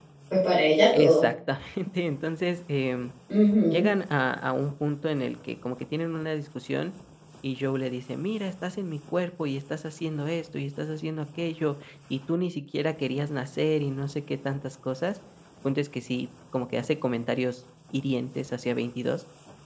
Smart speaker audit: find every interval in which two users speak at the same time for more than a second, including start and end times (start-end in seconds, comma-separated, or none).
none